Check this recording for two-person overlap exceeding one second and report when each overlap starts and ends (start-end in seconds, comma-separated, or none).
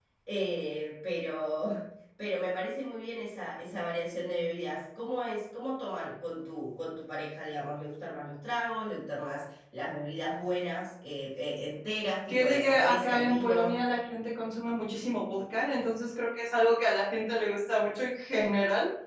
12.3-13.8